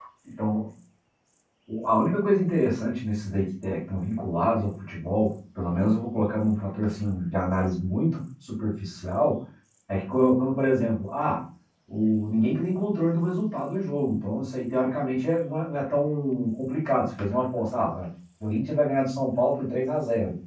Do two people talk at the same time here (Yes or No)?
No